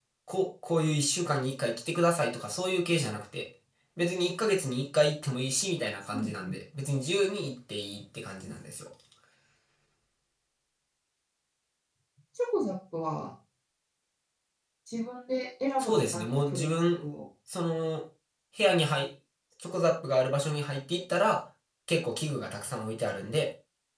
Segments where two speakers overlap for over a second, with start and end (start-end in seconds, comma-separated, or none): 15.8-17.0